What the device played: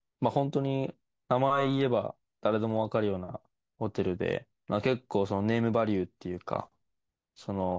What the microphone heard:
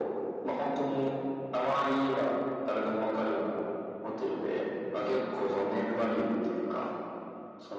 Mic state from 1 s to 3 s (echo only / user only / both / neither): echo only